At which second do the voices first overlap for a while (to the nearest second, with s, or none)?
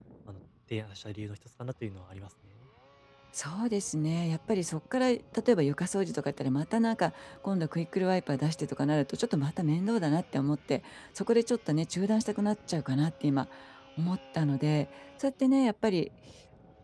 none